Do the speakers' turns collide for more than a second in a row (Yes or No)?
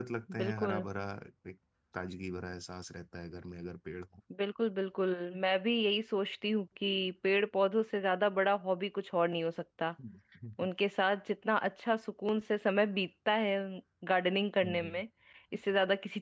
No